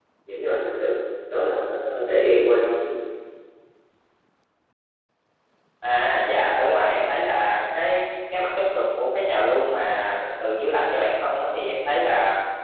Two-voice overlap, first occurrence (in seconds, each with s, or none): none